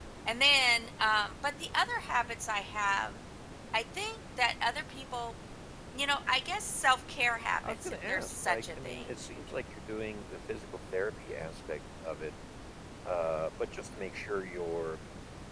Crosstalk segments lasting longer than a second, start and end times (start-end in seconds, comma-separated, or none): 7.7-9.1